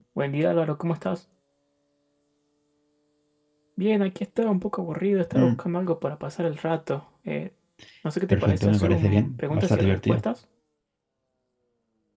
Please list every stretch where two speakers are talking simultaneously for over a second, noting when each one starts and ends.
8.3-10.2

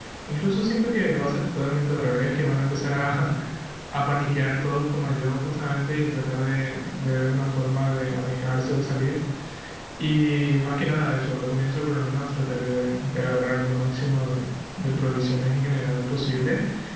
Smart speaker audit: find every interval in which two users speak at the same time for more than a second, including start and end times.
none

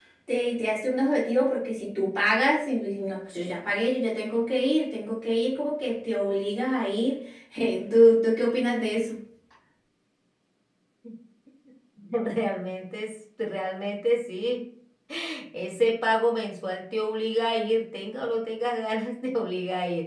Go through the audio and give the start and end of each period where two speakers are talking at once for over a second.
none

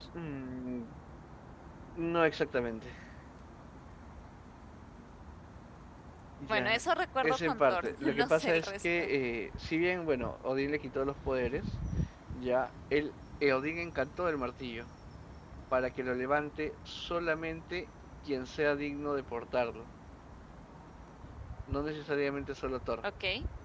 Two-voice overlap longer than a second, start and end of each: 7.2-9.1

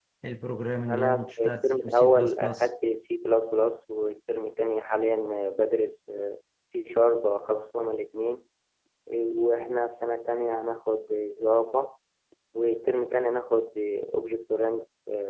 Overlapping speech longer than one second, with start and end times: 0.9-2.7

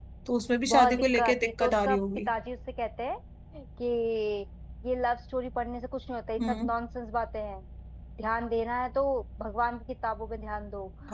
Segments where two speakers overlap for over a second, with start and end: 0.7-2.3

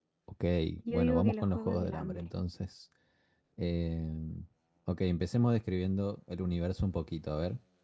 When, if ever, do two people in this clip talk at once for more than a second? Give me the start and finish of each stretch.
0.9-2.2

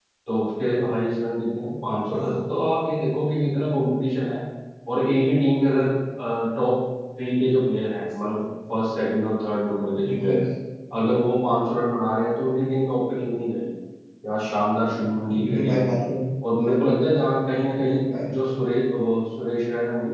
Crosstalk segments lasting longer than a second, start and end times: none

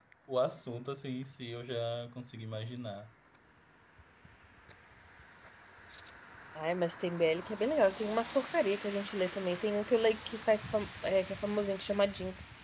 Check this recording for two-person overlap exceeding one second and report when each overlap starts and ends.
none

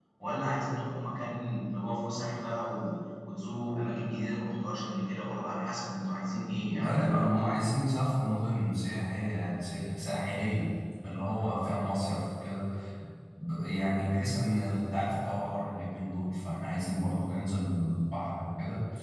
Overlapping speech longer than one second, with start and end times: none

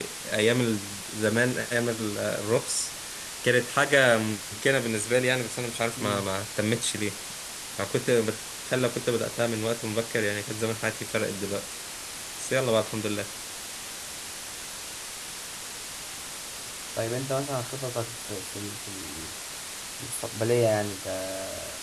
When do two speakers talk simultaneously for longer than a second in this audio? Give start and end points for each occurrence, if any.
none

